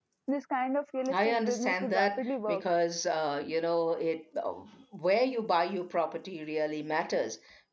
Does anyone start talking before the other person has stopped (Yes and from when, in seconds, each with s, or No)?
Yes, from 1.1 s